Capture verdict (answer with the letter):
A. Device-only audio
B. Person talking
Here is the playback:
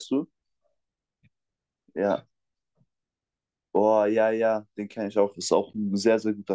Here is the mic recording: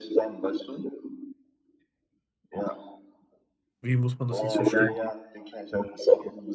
B